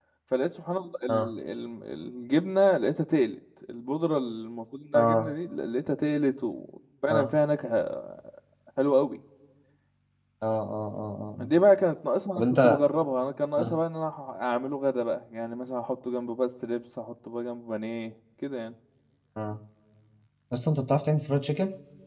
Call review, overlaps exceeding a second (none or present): none